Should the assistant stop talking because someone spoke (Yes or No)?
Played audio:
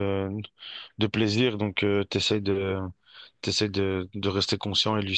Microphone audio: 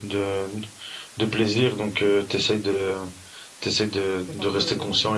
Yes